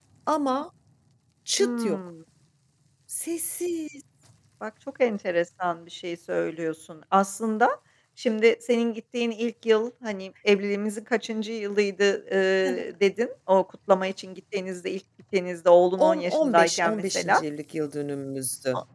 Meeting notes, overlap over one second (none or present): present